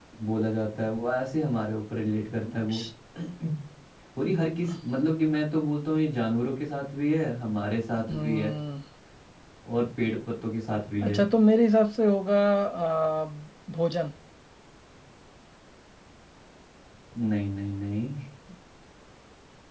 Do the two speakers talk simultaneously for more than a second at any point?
No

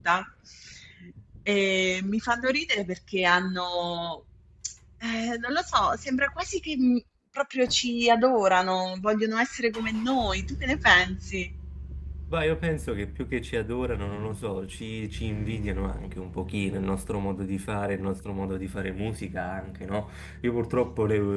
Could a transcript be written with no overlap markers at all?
Yes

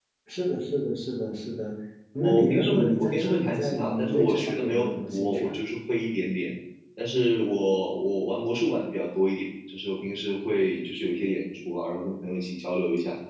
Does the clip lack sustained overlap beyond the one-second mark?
No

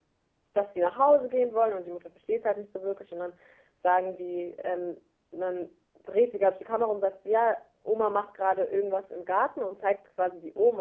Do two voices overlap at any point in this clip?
No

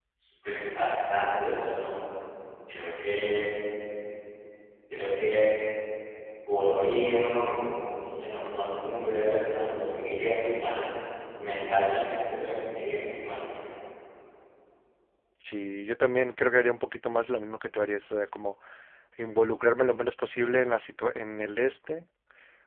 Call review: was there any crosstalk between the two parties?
No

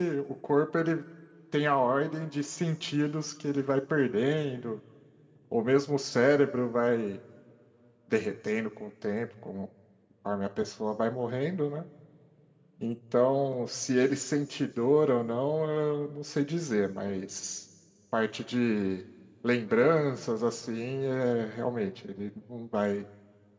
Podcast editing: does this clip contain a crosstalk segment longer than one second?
No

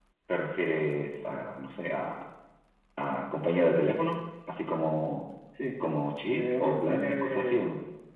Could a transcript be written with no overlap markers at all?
No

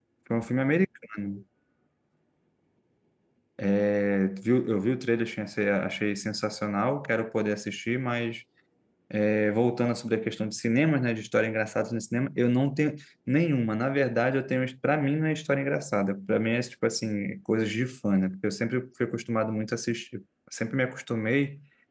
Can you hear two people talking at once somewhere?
No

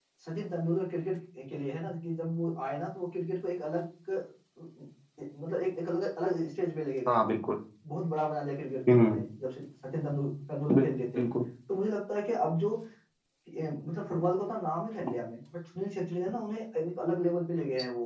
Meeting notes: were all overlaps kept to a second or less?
Yes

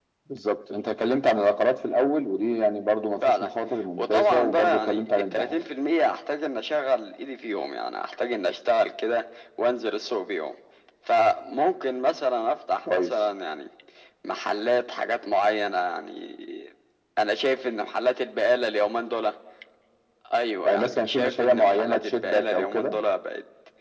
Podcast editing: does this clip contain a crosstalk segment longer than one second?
Yes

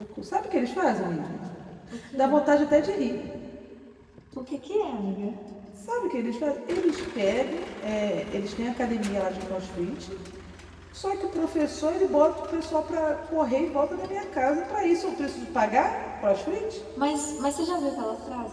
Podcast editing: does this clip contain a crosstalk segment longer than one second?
No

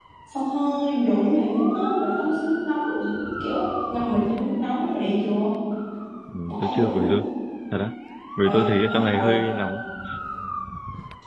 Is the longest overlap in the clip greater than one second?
Yes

